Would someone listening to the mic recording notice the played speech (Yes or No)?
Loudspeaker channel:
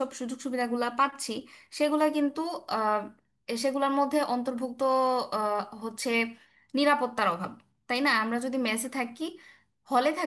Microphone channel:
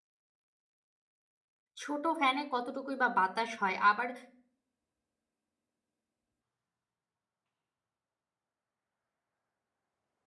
No